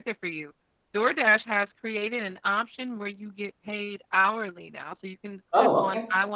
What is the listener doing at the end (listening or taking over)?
listening